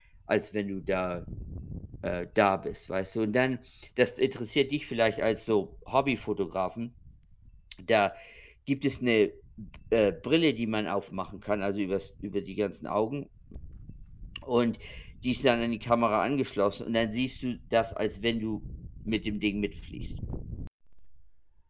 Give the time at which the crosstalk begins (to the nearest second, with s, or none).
none